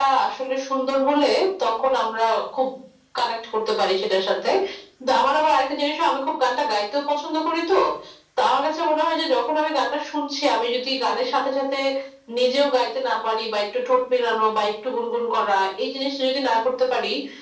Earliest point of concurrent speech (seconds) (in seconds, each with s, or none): none